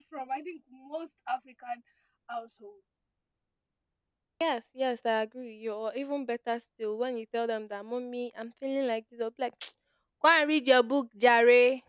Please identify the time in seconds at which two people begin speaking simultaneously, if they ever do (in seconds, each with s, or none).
none